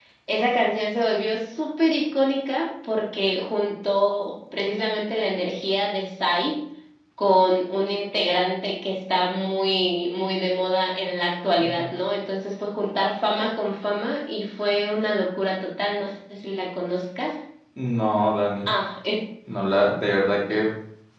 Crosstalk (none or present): none